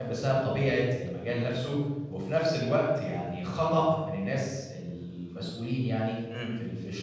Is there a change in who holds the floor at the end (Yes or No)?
No